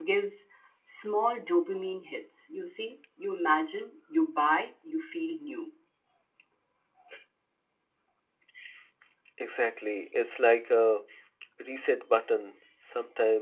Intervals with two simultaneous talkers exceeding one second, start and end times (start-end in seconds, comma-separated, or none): none